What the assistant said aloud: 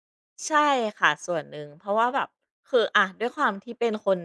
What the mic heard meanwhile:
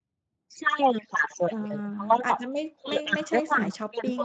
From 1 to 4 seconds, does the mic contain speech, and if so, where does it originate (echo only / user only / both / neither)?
both